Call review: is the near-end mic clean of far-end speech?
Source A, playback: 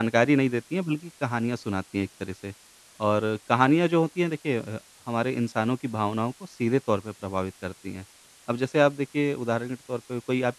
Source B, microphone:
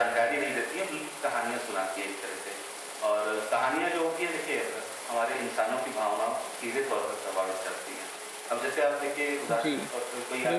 No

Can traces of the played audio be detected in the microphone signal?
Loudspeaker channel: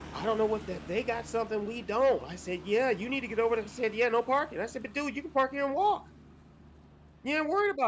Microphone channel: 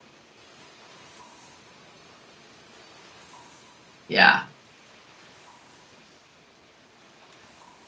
No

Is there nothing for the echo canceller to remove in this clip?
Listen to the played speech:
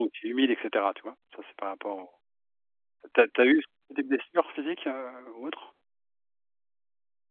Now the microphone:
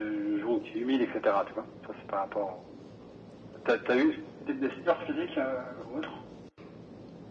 No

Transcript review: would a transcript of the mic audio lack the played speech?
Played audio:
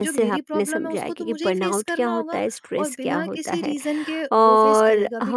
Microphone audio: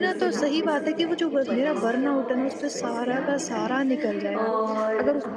No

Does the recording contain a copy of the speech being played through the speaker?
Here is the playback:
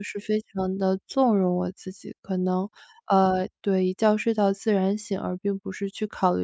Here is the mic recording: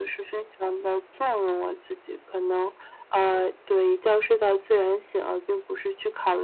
Yes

